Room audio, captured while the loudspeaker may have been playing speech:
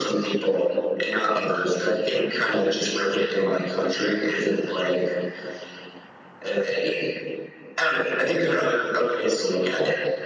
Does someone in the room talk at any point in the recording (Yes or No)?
No